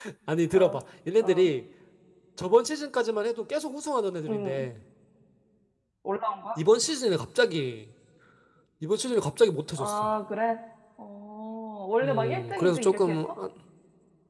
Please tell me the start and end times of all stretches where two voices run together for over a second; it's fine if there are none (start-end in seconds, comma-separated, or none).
12.0-13.3